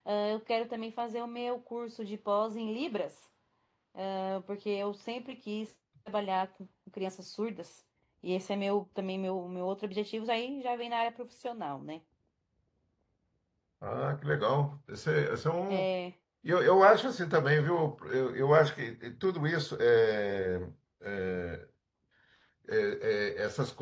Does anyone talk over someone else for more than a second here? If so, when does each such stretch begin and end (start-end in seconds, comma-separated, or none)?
none